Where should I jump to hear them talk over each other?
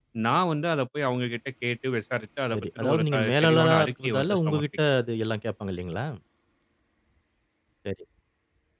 2.5 s

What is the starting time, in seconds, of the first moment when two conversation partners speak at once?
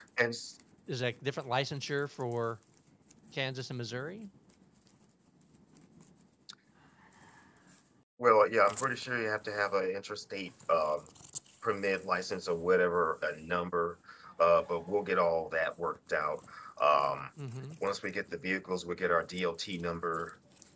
none

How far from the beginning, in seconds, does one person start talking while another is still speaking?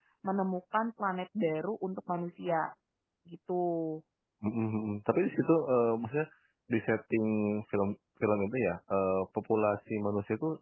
none

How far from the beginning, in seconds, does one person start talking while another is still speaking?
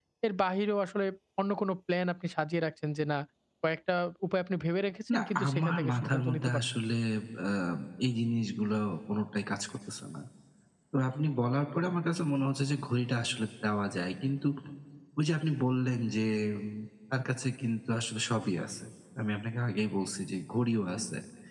5.1 s

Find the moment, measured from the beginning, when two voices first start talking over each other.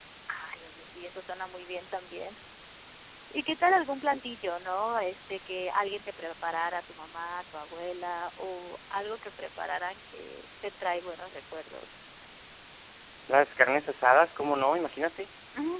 none

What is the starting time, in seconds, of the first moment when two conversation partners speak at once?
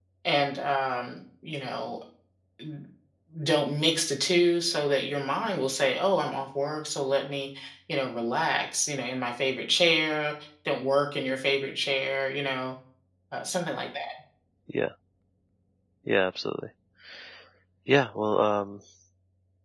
none

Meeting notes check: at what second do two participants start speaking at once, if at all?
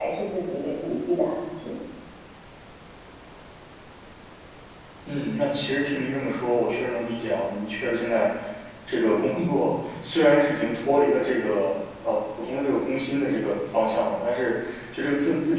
none

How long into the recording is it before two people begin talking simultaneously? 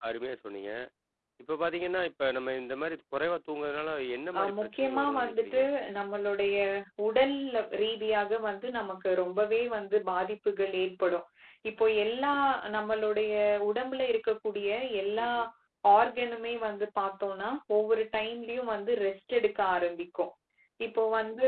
4.3 s

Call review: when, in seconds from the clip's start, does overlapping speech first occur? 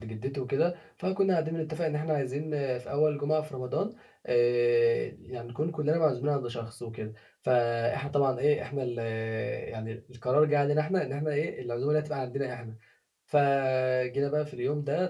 none

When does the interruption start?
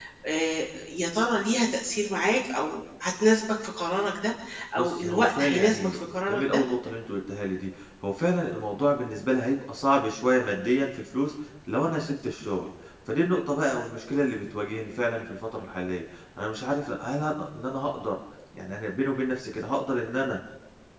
4.8 s

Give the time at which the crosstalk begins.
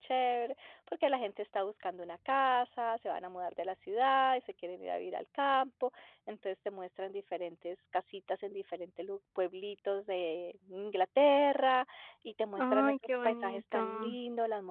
12.6 s

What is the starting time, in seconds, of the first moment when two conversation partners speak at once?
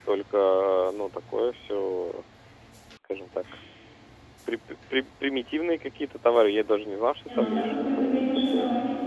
7.2 s

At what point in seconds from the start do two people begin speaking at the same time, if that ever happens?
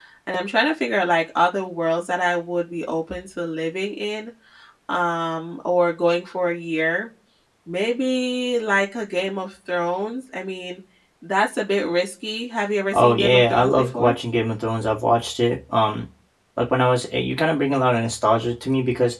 12.9 s

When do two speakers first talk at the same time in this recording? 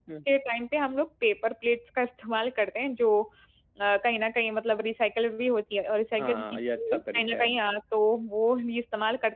6.2 s

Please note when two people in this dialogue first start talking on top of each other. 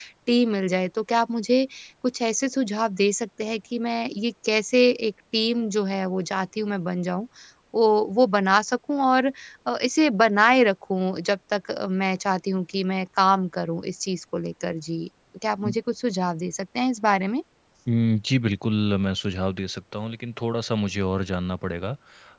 none

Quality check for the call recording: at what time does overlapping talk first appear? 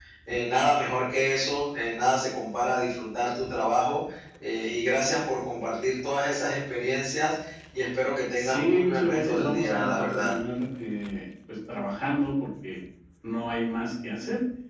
8.4 s

